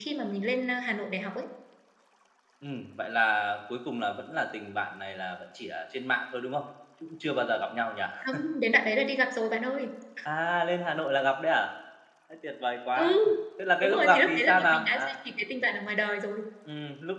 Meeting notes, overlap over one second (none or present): present